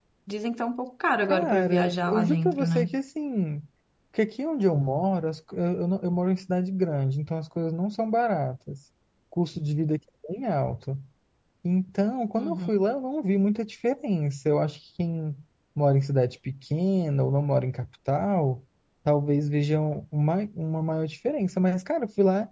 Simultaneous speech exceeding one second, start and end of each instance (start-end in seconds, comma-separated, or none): 1.3-2.9